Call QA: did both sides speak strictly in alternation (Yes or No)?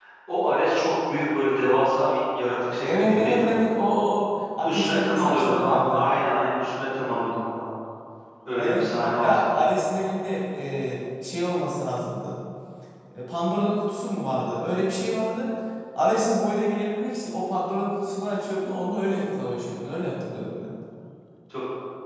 No